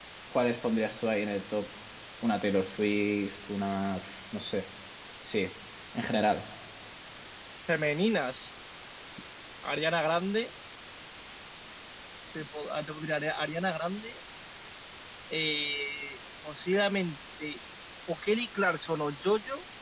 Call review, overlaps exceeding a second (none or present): none